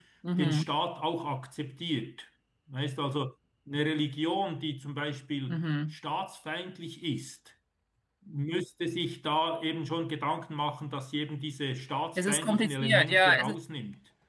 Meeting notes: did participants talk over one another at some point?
Yes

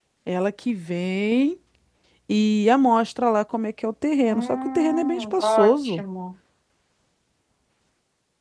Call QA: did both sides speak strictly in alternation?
No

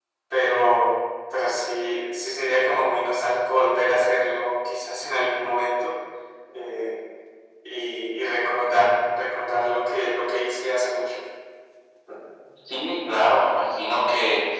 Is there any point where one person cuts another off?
No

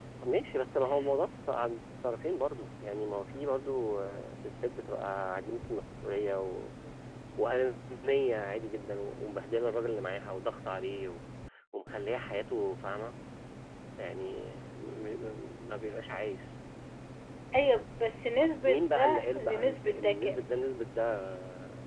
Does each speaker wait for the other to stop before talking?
No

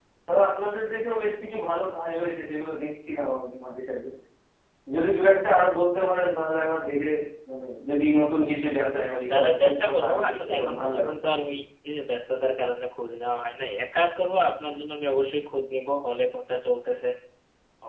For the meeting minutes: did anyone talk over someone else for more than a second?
Yes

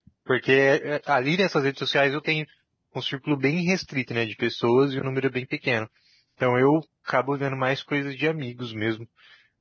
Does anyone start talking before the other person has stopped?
No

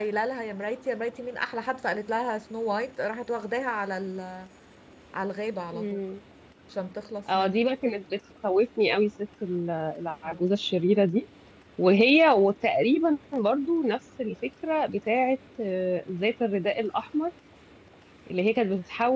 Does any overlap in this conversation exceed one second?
No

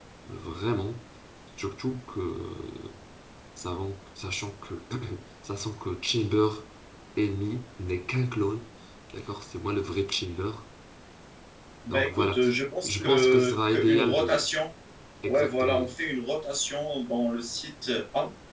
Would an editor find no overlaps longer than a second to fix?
No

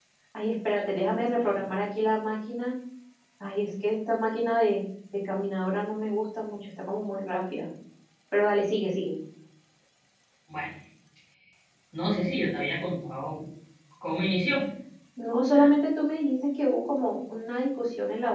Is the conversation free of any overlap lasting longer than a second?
Yes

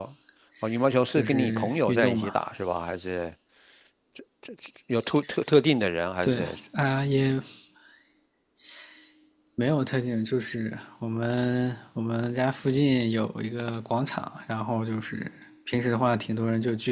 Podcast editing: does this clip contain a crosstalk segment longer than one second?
Yes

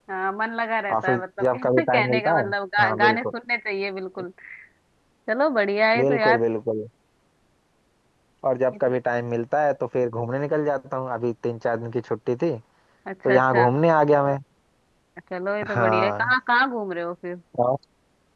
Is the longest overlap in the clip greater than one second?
Yes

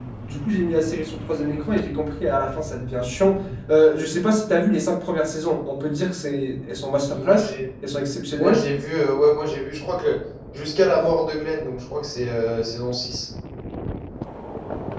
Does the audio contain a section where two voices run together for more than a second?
No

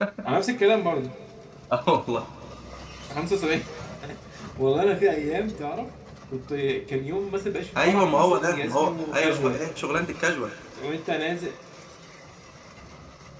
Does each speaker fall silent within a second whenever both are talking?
No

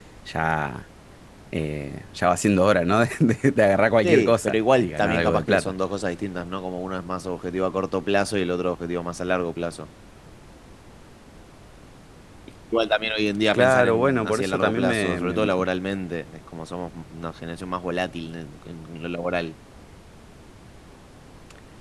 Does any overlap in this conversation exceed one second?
Yes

